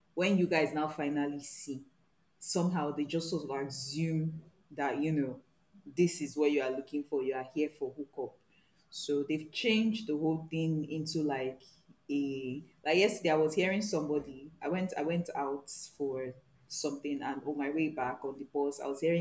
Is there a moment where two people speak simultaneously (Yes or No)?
No